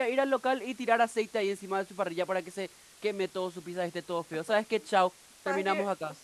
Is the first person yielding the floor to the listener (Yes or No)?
Yes